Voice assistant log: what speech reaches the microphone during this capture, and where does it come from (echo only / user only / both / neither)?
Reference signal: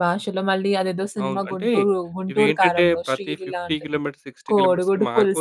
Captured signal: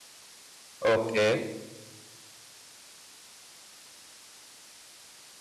user only